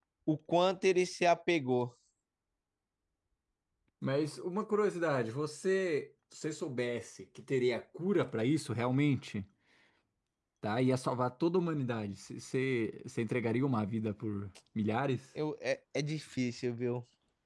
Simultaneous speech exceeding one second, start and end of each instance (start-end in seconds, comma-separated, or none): none